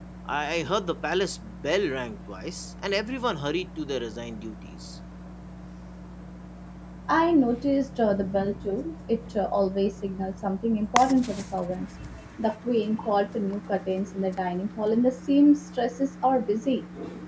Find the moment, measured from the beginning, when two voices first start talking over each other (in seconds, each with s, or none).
none